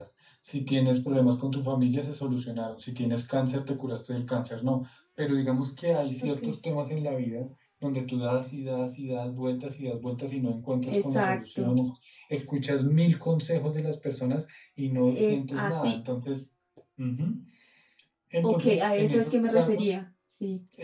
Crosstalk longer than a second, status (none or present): present